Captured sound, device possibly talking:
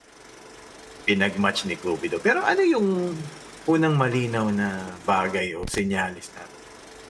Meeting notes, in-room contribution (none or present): present